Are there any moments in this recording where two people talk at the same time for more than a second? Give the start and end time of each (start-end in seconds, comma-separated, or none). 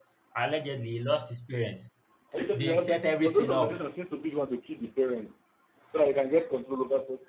2.5-3.8